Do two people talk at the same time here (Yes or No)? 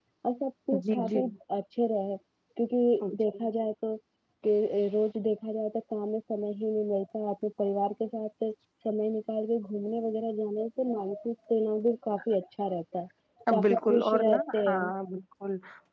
Yes